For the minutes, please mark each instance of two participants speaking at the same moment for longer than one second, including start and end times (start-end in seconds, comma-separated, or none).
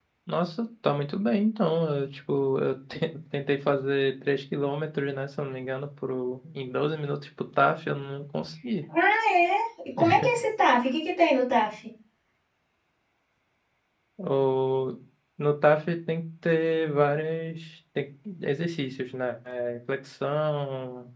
none